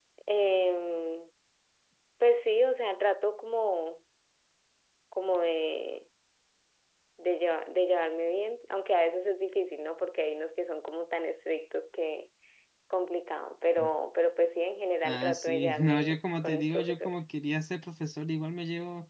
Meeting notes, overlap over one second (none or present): present